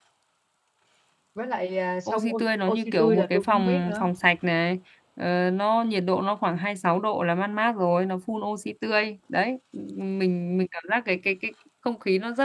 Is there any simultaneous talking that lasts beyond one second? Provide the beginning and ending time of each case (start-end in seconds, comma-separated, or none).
2.1-4.1